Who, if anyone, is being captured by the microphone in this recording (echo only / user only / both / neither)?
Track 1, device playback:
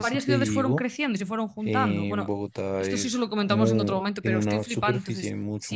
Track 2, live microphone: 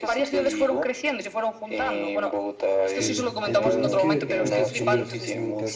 both